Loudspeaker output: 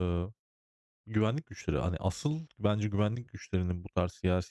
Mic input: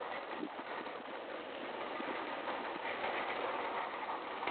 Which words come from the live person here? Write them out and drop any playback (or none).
none